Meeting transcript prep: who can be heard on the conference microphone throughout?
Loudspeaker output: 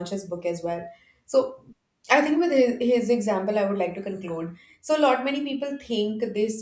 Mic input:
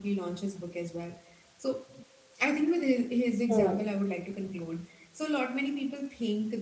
both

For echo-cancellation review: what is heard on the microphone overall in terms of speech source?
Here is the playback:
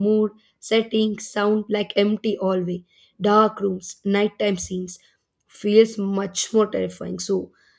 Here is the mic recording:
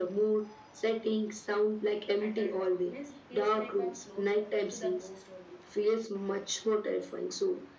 both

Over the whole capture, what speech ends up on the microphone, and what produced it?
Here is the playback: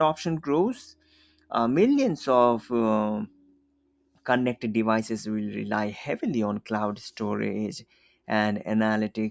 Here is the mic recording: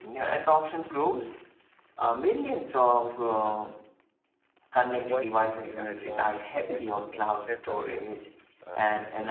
both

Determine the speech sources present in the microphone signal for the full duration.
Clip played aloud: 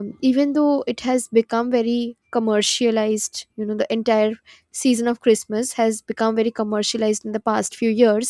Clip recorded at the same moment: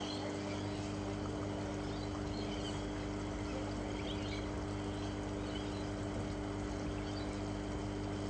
neither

